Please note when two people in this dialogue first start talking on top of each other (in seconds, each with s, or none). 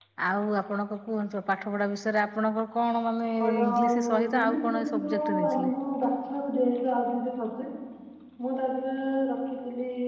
3.3 s